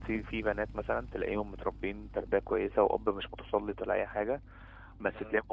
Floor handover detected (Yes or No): No